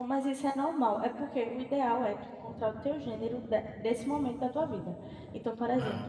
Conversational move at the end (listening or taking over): listening